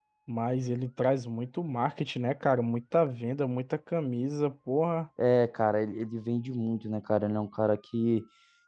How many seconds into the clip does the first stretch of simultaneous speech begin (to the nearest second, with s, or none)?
none